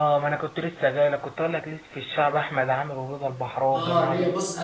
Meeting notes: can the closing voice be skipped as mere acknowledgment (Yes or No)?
No